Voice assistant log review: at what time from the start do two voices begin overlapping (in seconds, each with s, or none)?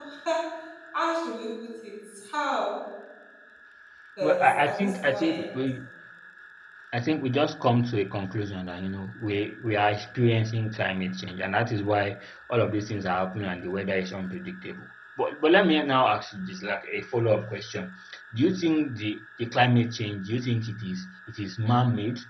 4.2 s